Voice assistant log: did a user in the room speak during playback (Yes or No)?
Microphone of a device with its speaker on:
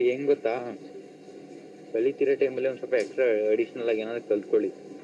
No